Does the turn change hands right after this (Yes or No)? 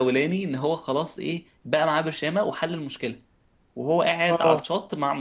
No